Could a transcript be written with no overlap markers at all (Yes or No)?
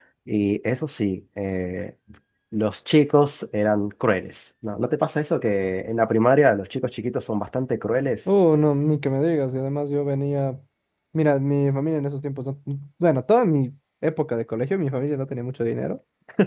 Yes